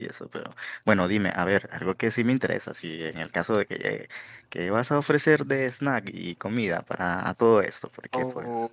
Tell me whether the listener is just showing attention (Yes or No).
No